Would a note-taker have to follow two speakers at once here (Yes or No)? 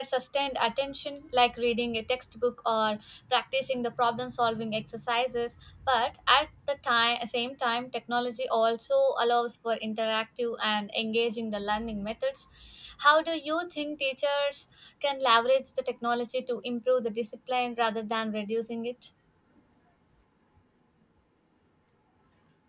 No